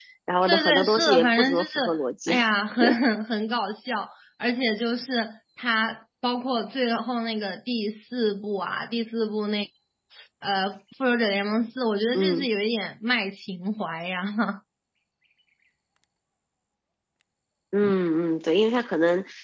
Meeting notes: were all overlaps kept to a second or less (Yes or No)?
No